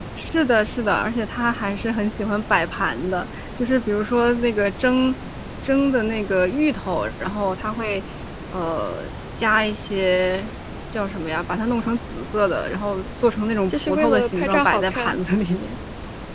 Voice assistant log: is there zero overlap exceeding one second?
No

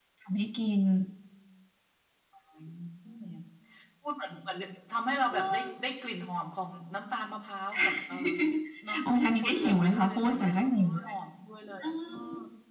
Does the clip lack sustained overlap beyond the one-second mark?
No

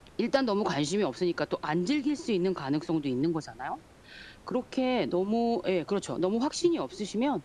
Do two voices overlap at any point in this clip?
No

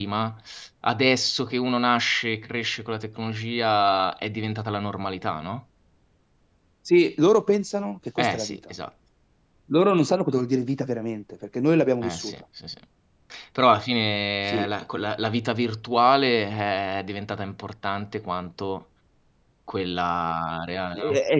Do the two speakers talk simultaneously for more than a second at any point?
No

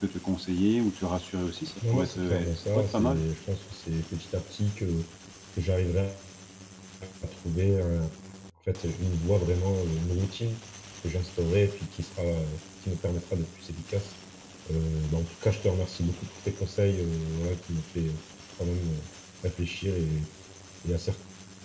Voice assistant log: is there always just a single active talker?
No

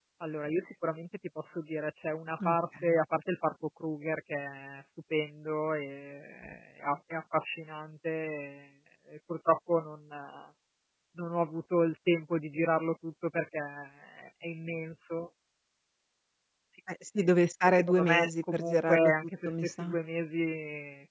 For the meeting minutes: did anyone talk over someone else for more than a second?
Yes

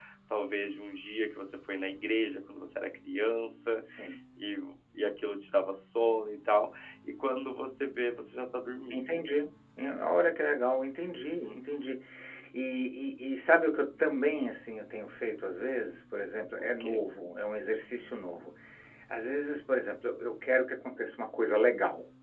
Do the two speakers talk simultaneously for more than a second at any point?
No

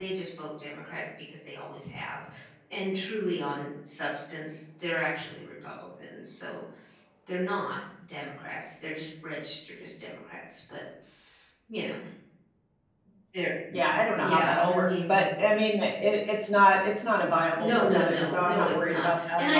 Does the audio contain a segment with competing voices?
Yes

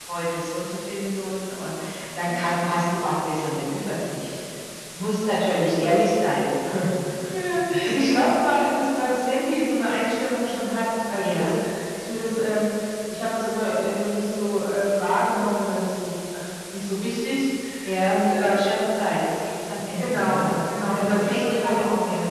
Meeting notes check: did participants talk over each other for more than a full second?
Yes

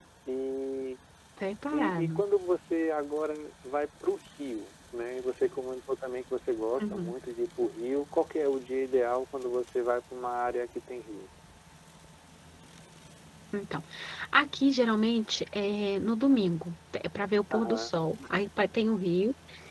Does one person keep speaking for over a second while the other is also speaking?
No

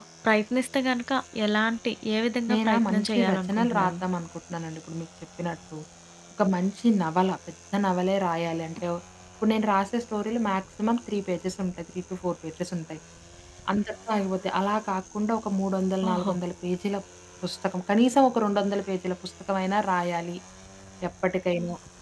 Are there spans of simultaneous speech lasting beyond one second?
Yes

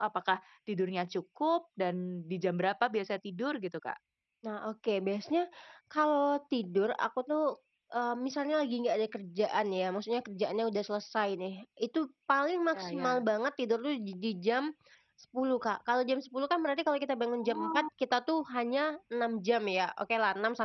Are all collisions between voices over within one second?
Yes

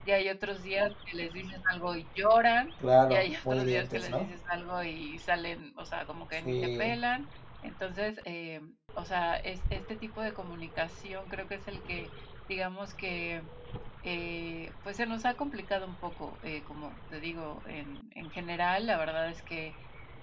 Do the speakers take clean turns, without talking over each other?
No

